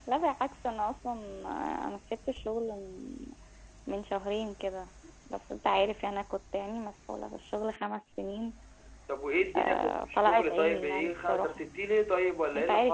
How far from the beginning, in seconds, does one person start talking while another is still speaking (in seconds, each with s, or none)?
9.6 s